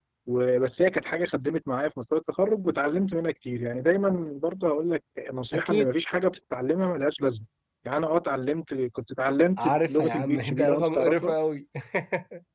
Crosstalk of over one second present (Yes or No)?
Yes